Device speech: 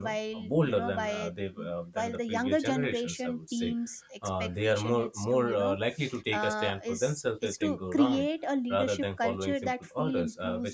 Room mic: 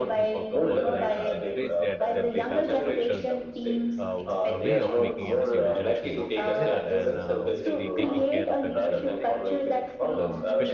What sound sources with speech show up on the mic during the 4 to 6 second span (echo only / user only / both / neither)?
both